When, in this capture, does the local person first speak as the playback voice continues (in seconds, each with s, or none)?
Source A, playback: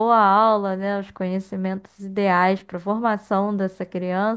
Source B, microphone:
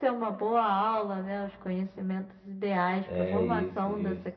3.0 s